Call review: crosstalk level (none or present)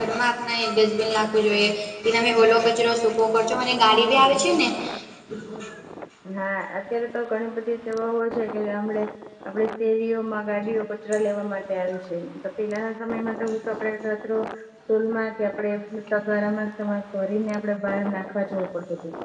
none